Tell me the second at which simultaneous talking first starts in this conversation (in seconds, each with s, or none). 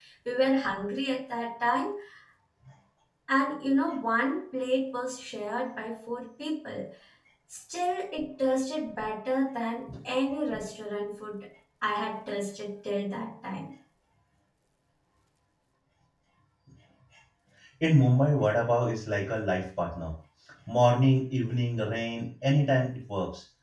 none